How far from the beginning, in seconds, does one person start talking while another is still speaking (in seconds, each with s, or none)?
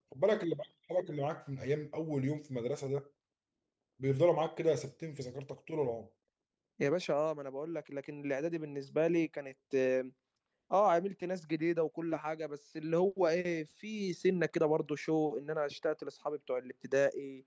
none